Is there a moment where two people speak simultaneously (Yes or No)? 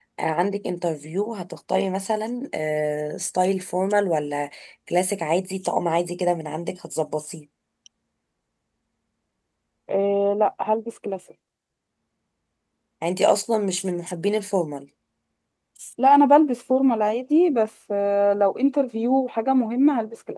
No